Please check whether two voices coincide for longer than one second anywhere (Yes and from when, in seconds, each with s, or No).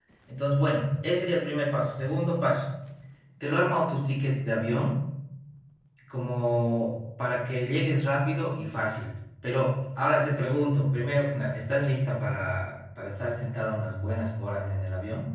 No